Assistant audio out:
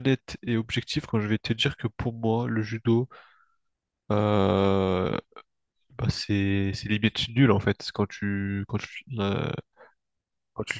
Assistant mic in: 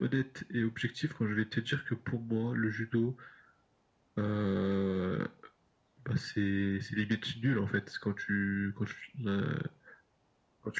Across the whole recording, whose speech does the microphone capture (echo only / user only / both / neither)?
echo only